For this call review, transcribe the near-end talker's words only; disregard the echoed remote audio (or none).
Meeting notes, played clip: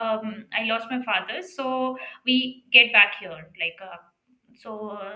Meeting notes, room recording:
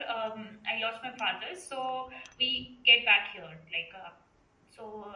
none